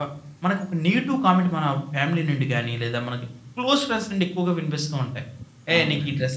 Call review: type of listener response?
listening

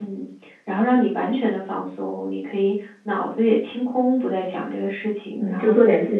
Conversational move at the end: taking over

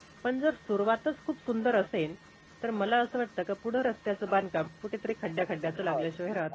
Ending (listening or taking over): taking over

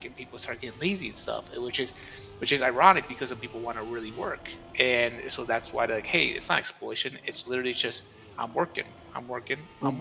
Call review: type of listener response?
taking over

